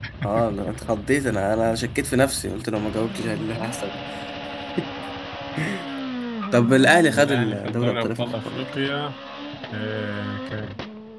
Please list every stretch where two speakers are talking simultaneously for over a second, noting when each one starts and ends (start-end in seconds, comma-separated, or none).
7.1-8.7